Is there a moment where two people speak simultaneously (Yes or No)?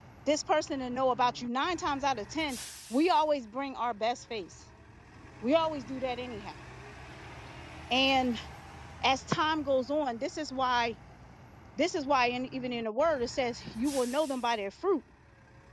No